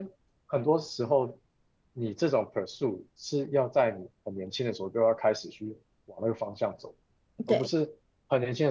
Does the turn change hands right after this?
No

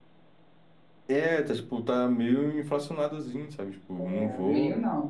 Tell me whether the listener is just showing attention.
No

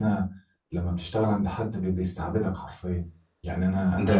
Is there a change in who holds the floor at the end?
No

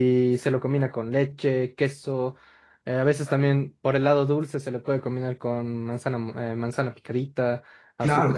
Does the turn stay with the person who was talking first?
No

